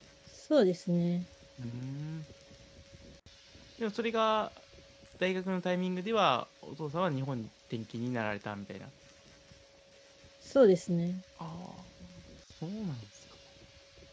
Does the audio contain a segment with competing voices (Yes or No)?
No